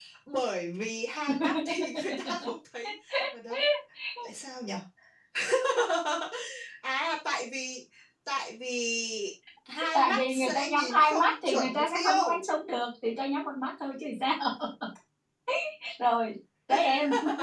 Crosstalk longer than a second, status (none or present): present